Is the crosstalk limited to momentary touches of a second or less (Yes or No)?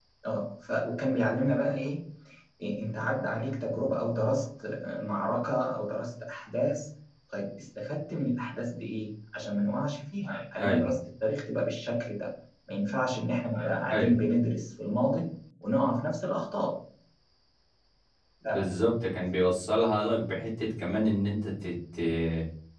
Yes